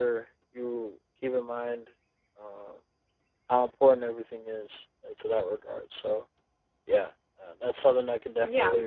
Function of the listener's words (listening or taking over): taking over